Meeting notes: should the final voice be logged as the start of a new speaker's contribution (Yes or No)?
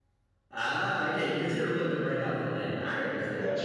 Yes